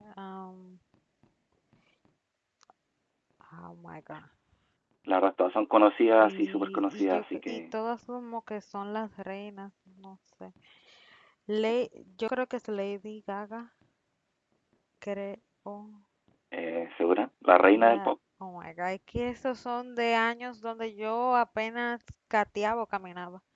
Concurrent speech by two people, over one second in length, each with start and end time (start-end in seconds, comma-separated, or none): 6.2-7.8